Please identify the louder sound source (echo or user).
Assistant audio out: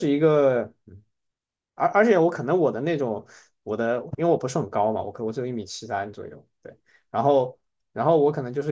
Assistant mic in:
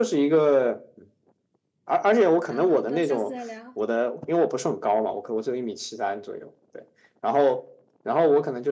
echo